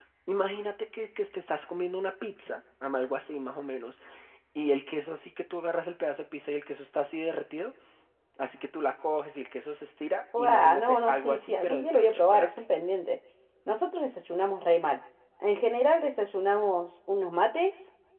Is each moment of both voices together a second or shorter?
No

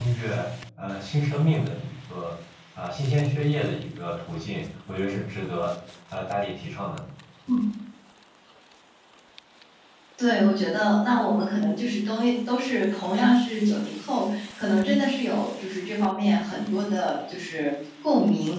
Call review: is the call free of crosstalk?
Yes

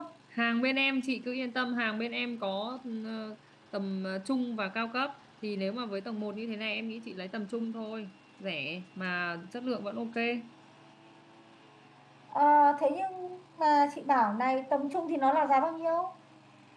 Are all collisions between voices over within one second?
Yes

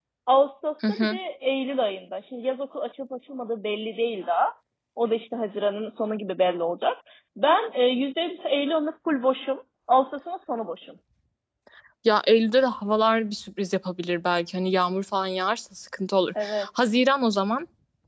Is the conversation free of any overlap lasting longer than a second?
Yes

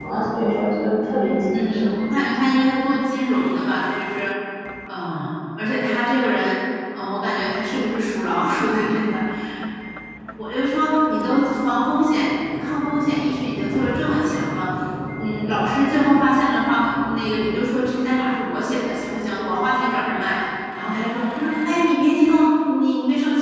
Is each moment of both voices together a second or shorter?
Yes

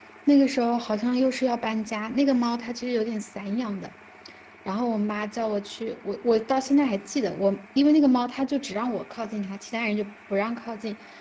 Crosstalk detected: No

